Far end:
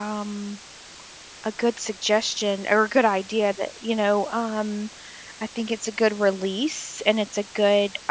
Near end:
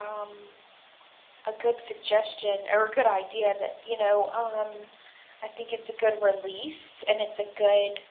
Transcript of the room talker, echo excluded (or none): none